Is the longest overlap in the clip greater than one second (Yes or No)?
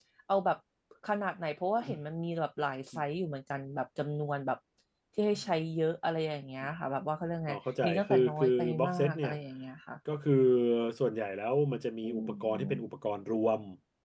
Yes